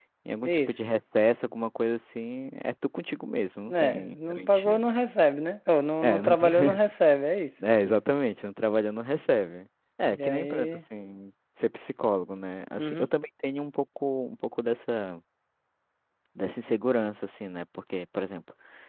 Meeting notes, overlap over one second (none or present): present